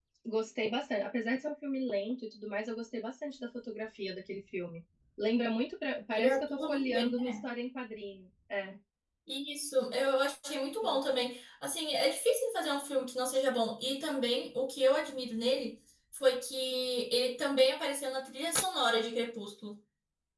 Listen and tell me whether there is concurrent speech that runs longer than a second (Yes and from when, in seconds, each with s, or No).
Yes, from 6.1 s